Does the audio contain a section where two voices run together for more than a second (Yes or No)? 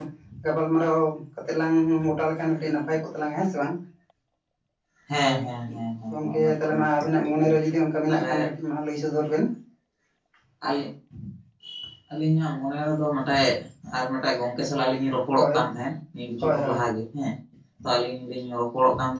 Yes